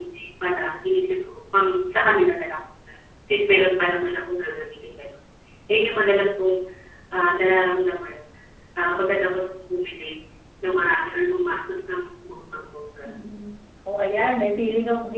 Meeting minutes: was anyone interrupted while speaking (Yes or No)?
No